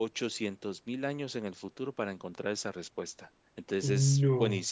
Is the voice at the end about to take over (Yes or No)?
No